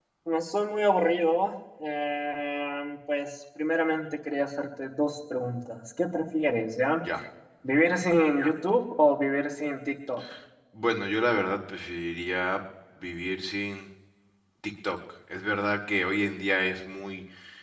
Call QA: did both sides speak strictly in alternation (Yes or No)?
Yes